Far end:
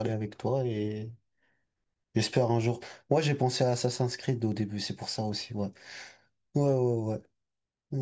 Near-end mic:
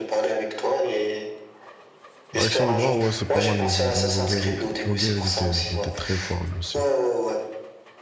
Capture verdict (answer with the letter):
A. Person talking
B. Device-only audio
A